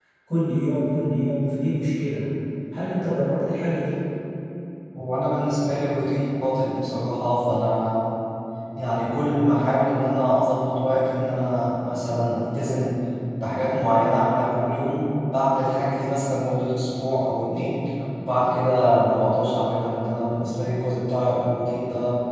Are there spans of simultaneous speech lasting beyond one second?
No

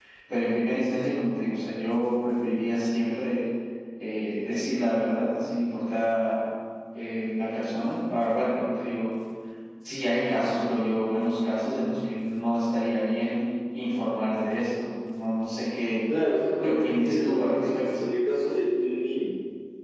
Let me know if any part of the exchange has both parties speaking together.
Yes, from 16.6 s

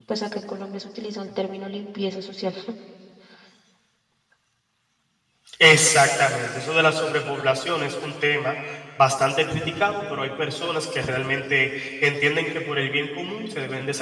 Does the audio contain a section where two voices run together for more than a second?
No

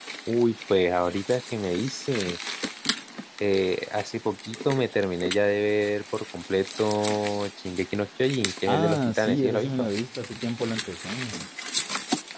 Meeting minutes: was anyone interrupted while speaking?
Yes, from 8.7 s

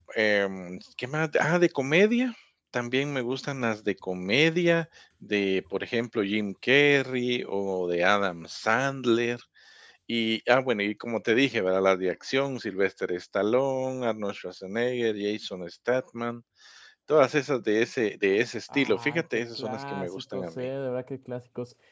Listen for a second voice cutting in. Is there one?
Yes, from 18.7 s

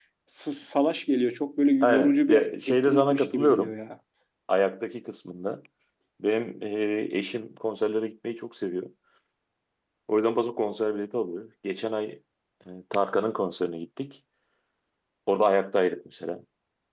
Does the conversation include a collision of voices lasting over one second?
Yes, from 1.8 s

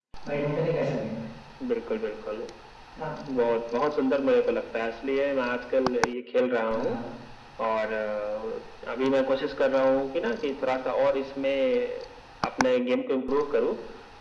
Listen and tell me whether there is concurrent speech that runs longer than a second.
No

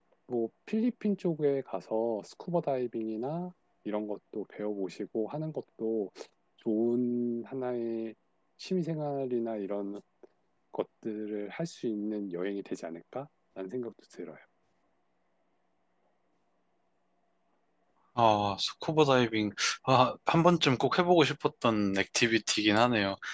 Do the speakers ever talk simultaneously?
No

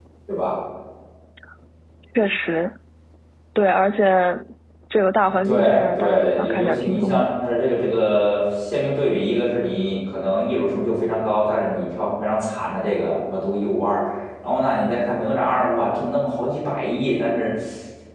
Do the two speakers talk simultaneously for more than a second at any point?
Yes, from 5.4 s

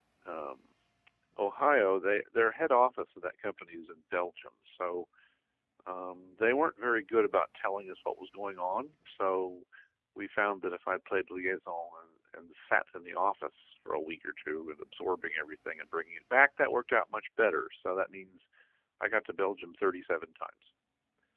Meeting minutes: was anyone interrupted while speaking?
No

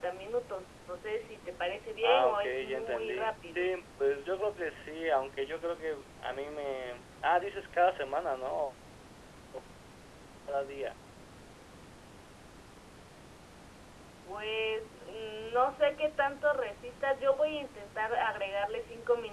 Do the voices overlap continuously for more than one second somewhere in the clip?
Yes, from 2.0 s

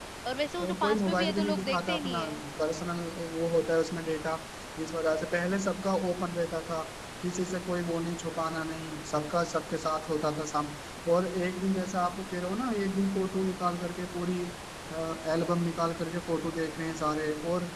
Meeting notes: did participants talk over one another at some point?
Yes, from 0.6 s

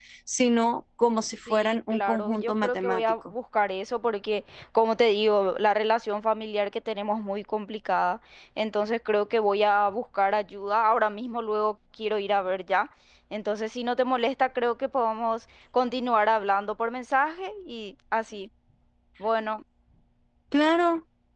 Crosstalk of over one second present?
Yes, from 1.5 s

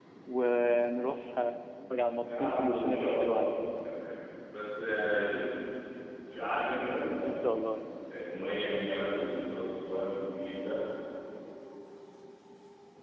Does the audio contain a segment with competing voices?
Yes, from 2.1 s

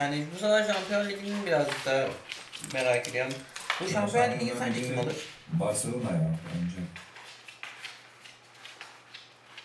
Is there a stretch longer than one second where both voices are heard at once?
Yes, from 3.8 s

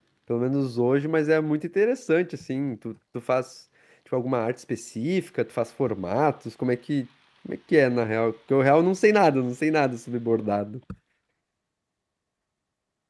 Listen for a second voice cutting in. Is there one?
No

